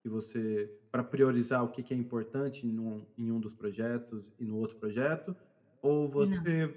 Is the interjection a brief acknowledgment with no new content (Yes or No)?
Yes